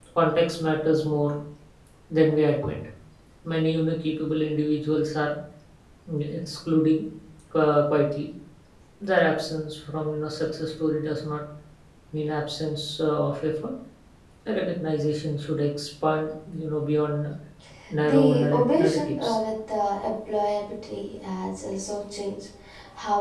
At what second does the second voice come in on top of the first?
18 s

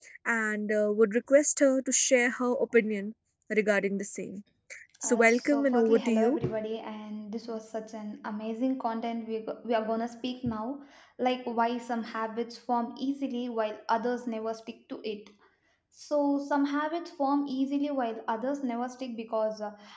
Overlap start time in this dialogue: 5 s

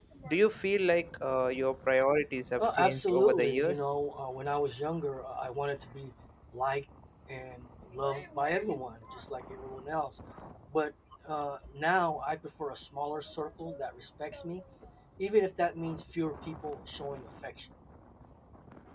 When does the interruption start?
3 s

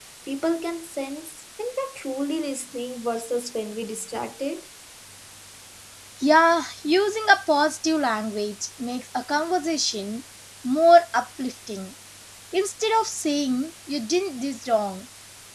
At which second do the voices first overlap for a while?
none

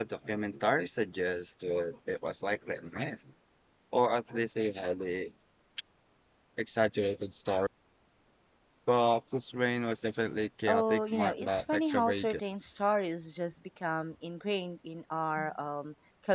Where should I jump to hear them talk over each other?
11 s

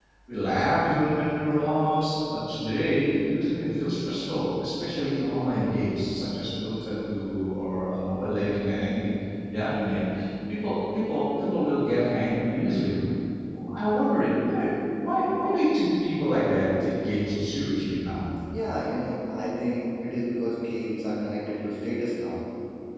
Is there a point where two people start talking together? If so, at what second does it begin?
none

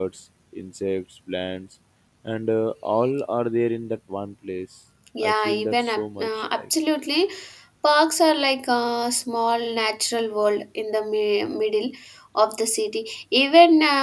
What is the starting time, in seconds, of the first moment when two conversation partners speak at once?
5 s

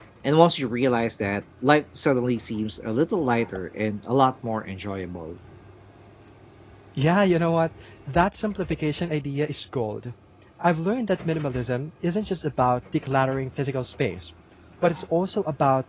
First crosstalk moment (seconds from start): none

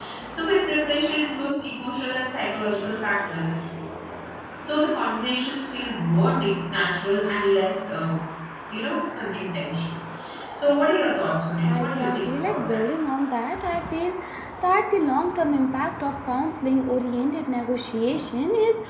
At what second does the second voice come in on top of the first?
12 s

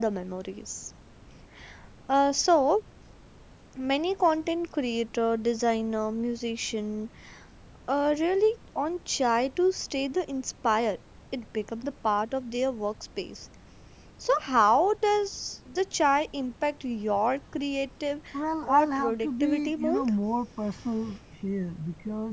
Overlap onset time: 19 s

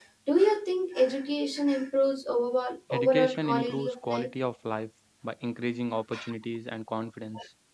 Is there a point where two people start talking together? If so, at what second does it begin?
3 s

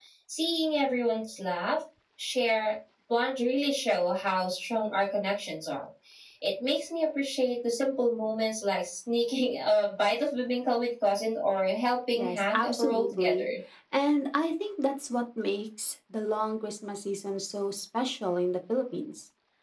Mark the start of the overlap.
12 s

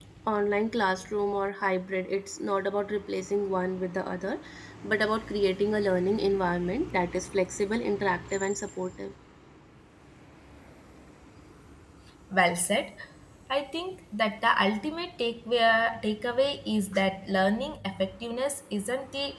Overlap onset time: none

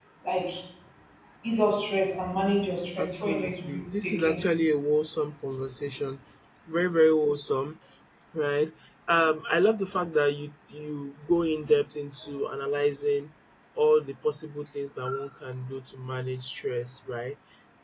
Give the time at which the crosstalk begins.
3 s

